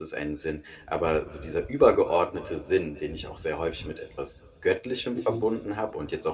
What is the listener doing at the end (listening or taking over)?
listening